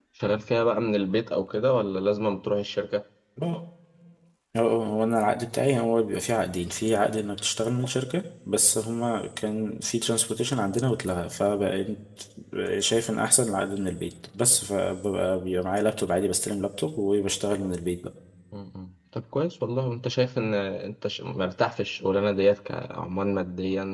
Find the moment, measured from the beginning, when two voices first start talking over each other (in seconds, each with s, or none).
none